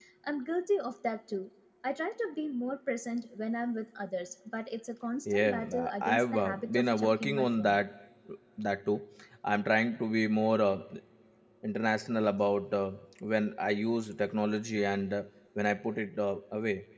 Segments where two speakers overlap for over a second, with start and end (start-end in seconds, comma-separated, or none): 5.2-7.8